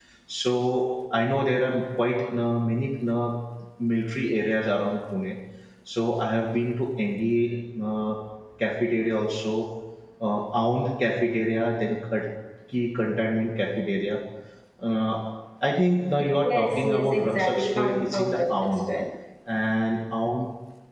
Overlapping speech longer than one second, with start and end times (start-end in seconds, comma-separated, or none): 16.5-18.8